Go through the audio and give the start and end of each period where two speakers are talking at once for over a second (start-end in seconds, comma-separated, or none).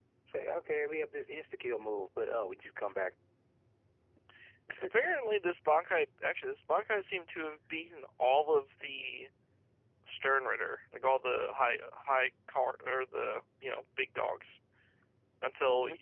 none